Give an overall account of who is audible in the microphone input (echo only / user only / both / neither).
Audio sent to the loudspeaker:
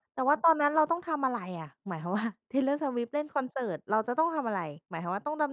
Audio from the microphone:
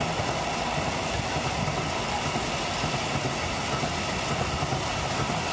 neither